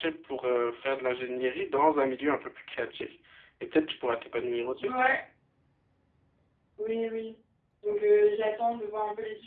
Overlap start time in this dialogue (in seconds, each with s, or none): none